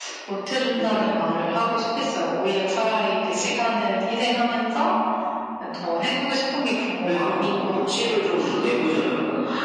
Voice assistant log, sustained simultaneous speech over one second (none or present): present